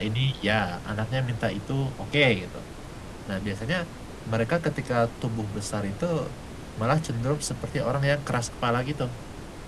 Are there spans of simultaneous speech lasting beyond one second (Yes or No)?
No